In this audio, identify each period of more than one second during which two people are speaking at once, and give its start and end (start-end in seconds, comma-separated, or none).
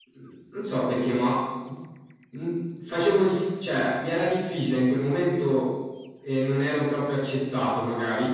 none